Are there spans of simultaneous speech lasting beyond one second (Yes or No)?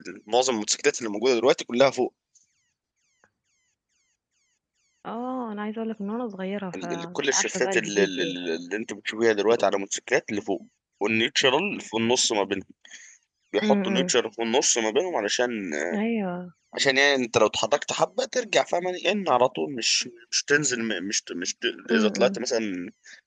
Yes